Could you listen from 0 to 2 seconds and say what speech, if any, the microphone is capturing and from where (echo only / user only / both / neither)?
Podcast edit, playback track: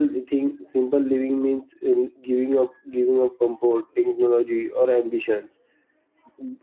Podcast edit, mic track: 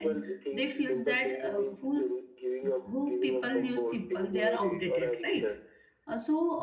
both